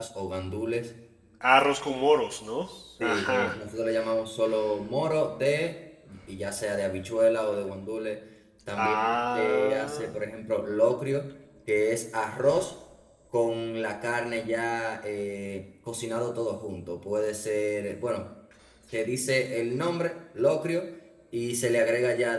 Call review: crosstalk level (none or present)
present